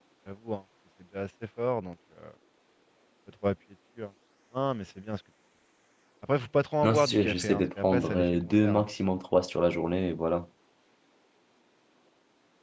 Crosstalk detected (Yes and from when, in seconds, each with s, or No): Yes, from 6.8 s